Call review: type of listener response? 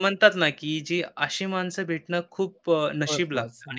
listening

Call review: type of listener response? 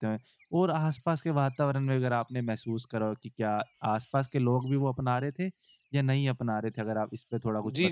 taking over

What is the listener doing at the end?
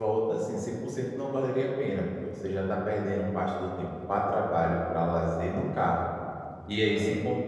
listening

